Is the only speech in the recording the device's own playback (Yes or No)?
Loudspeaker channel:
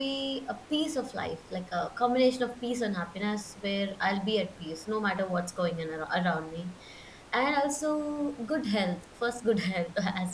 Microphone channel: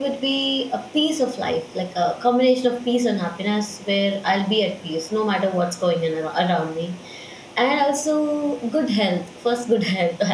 Yes